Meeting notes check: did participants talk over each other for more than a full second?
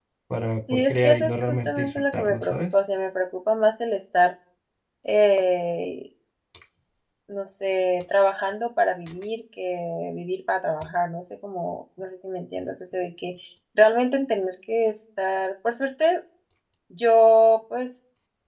Yes, from 0.6 s

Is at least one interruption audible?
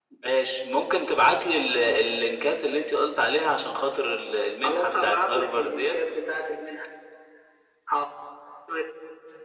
Yes, from 4.6 s

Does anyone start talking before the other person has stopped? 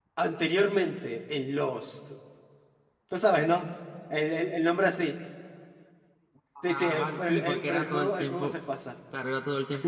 Yes, from 6.6 s

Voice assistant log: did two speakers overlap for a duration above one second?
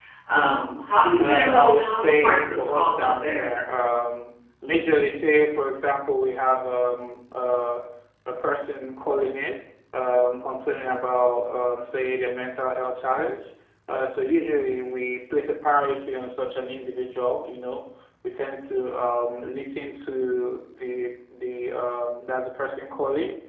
Yes, from 1.2 s

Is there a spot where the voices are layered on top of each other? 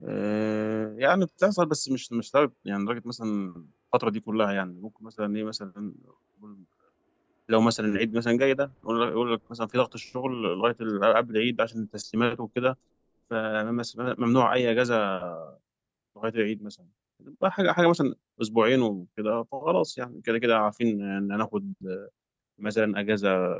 No

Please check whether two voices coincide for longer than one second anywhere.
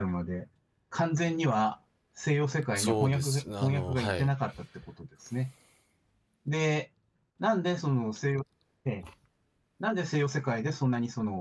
Yes, from 2.8 s

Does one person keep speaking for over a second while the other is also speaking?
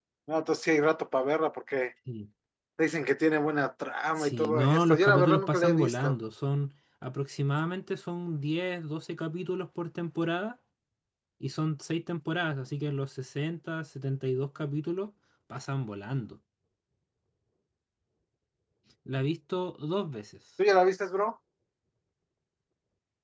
Yes, from 4.2 s

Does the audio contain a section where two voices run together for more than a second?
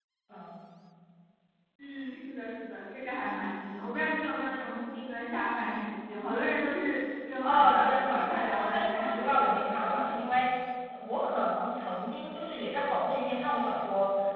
Yes, from 7.4 s

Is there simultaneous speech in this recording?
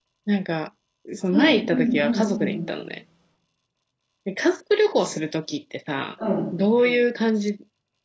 Yes, from 1.3 s

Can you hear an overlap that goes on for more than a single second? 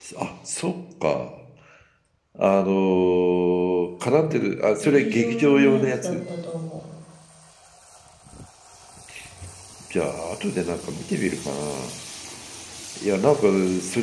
Yes, from 4.8 s

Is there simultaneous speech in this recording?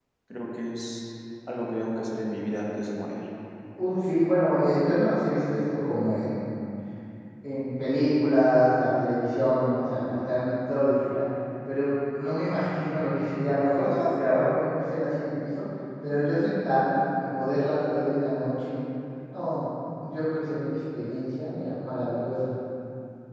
No

